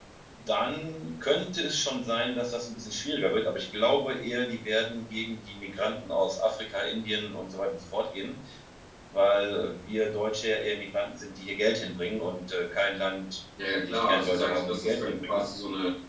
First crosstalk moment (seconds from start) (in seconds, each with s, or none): 13.6 s